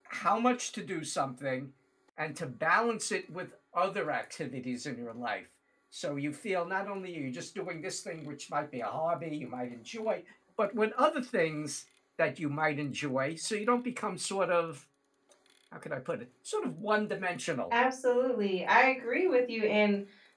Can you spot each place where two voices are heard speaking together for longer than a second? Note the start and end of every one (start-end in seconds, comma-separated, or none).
none